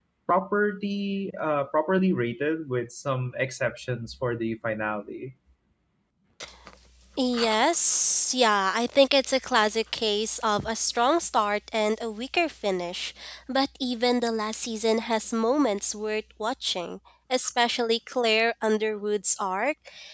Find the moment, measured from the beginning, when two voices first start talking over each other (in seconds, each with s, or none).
none